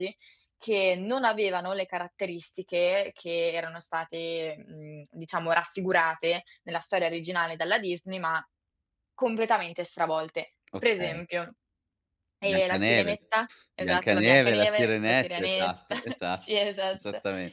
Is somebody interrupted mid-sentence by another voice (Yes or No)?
Yes